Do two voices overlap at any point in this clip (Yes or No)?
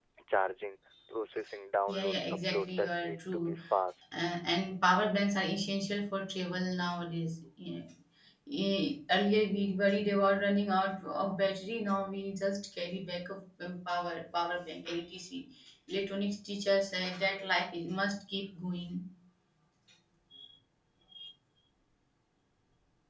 Yes